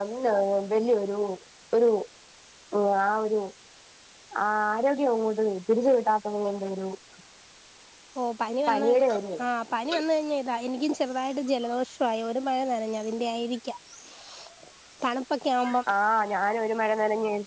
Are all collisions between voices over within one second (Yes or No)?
Yes